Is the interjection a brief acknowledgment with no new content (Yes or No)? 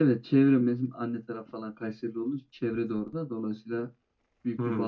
Yes